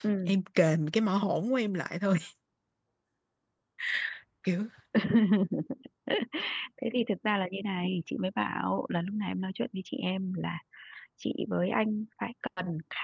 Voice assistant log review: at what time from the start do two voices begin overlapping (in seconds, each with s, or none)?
none